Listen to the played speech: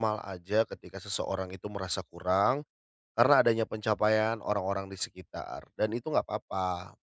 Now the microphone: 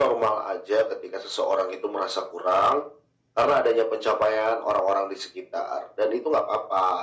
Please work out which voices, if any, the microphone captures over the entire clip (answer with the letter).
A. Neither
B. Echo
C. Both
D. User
B